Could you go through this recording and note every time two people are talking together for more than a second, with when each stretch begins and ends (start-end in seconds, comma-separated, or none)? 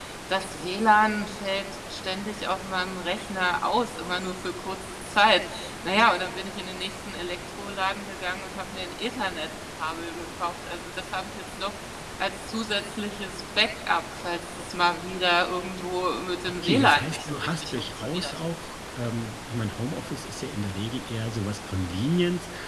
16.6-18.3